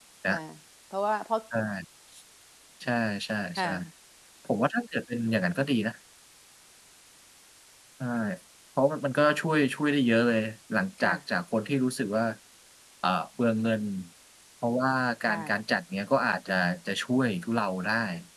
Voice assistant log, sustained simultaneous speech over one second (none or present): none